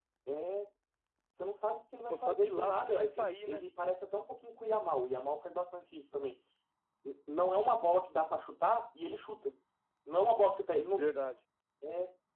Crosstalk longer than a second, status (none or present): present